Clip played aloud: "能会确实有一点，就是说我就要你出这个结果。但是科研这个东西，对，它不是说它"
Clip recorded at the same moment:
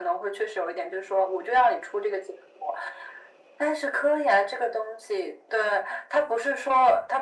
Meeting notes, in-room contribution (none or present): none